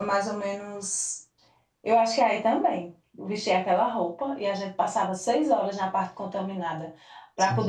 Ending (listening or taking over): listening